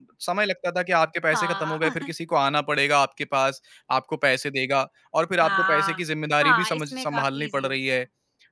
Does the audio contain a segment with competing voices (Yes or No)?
Yes